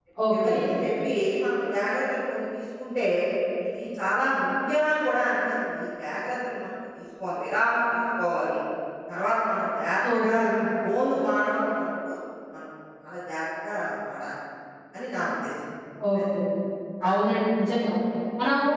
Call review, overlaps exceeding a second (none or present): none